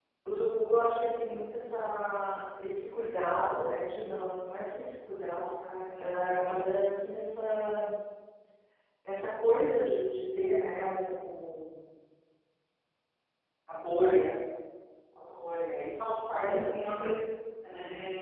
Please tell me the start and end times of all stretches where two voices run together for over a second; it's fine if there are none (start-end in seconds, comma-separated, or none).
none